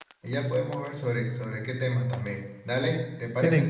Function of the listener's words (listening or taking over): listening